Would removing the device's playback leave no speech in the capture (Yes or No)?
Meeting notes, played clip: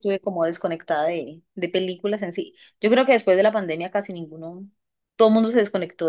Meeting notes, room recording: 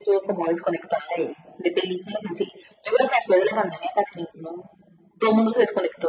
Yes